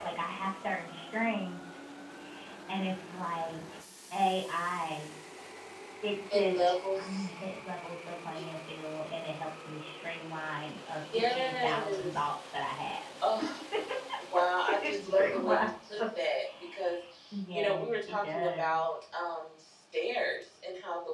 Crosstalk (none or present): present